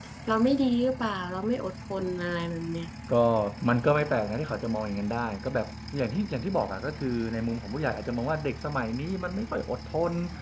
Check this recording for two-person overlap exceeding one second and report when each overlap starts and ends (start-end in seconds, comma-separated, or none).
none